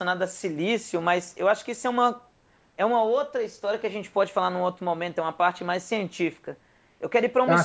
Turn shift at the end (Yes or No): No